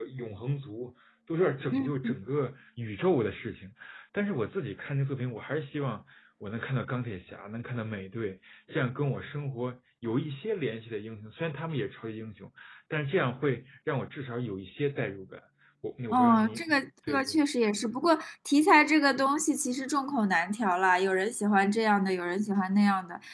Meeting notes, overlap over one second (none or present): present